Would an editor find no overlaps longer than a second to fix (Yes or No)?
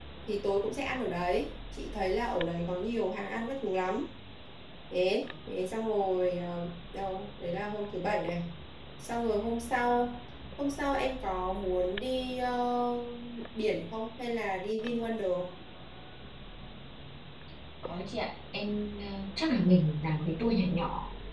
Yes